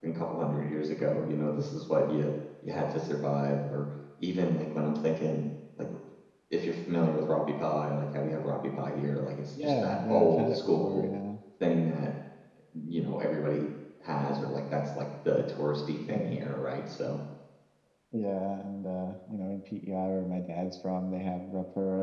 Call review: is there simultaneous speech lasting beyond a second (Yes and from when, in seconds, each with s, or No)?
Yes, from 9.6 s